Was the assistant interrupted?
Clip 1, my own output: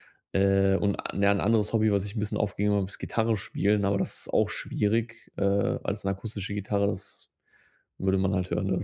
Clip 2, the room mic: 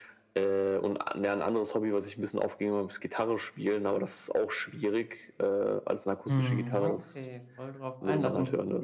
Yes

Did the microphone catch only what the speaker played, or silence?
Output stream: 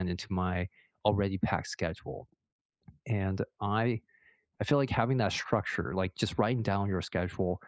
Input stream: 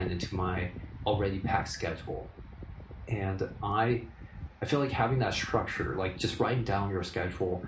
Yes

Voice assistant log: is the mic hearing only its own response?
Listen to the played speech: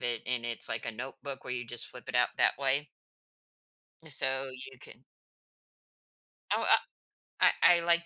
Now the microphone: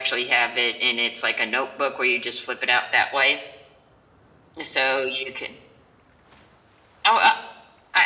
Yes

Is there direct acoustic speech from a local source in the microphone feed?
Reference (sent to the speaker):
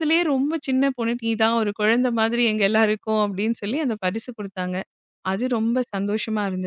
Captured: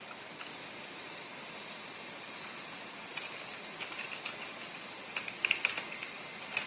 No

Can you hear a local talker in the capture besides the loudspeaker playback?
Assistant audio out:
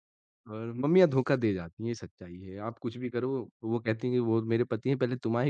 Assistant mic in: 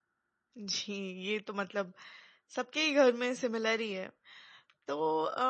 Yes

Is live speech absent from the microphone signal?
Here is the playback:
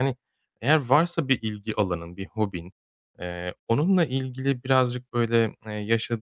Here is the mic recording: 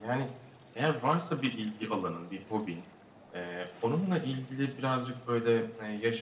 Yes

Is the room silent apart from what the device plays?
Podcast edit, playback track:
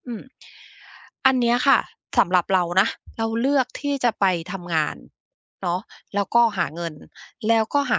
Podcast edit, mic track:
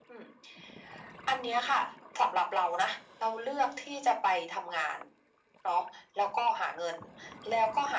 Yes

